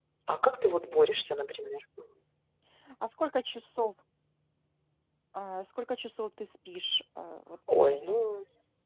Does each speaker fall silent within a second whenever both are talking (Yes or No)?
Yes